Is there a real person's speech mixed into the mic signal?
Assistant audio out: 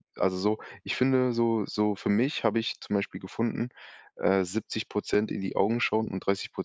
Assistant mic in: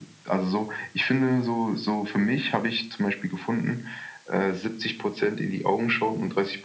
No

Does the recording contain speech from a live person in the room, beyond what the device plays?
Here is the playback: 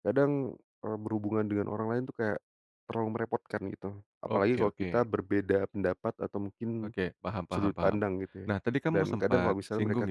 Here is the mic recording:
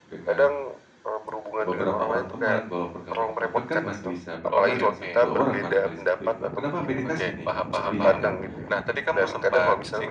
Yes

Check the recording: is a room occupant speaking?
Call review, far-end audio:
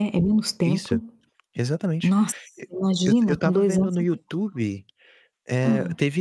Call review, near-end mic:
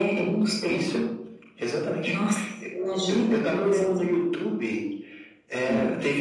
No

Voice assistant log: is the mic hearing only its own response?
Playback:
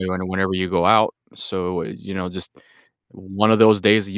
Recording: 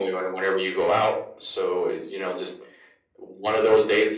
Yes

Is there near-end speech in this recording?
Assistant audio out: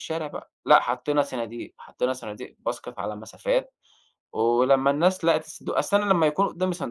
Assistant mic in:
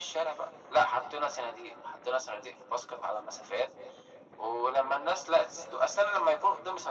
No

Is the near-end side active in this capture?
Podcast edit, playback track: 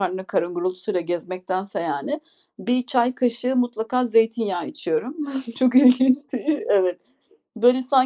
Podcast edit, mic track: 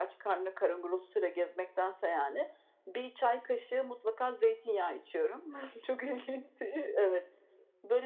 No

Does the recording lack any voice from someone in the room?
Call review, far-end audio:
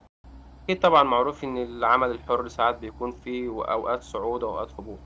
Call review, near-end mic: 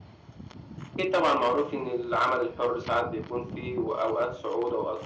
Yes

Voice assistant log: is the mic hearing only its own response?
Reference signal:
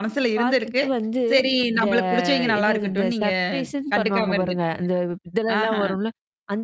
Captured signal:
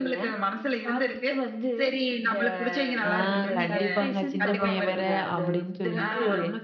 No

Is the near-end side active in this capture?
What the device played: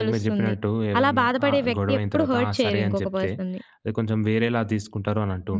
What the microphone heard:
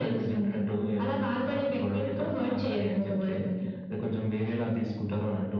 No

